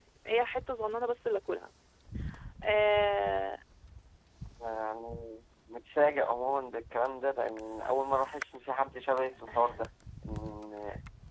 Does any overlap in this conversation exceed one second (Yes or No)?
No